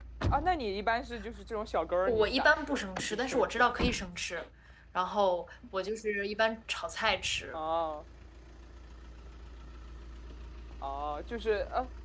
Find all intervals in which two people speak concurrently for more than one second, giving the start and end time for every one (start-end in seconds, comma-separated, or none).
2.1-3.7